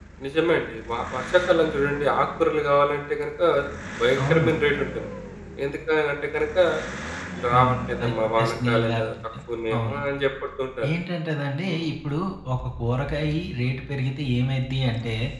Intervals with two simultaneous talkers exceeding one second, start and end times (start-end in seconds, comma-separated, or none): 7.5-9.1